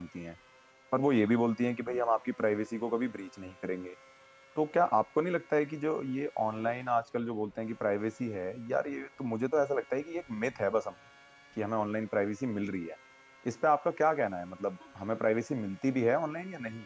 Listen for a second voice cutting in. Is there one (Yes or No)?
No